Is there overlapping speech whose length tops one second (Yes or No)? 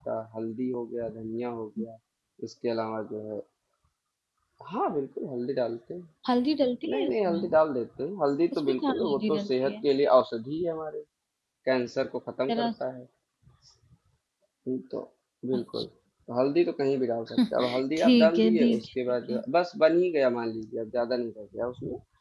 Yes